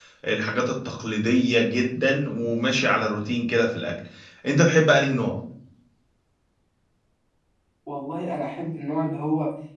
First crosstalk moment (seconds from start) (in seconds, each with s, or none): none